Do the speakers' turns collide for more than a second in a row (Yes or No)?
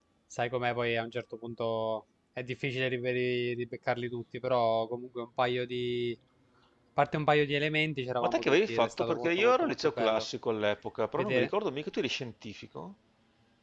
Yes